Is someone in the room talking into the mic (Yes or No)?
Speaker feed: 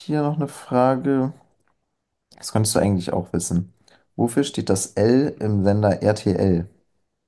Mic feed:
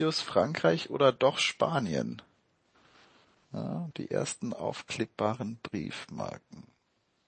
Yes